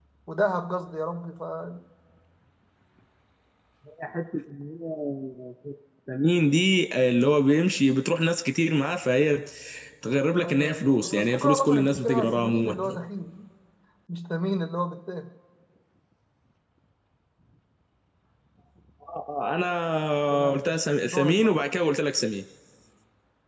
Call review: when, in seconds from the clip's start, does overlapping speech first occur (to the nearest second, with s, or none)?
10 s